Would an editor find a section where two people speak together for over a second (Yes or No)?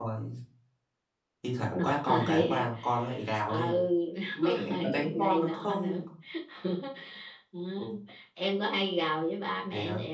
Yes